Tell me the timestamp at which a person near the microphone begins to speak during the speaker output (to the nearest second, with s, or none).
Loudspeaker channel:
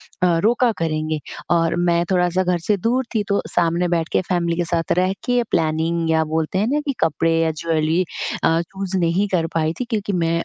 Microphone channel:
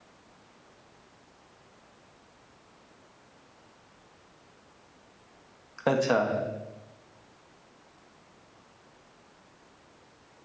6 s